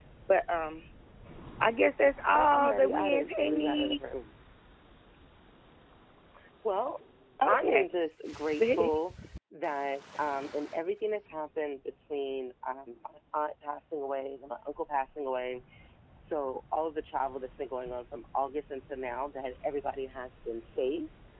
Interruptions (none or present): present